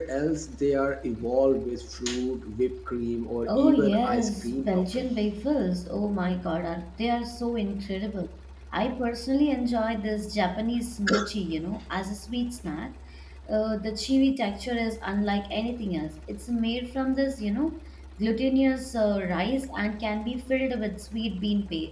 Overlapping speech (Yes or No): Yes